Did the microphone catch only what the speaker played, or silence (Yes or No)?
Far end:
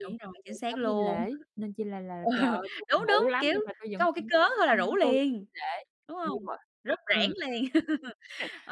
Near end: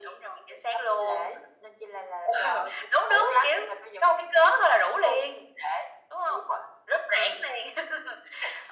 Yes